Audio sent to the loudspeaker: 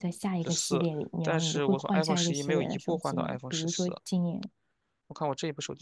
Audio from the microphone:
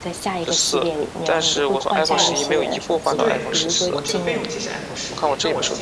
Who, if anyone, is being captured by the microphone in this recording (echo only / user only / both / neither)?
both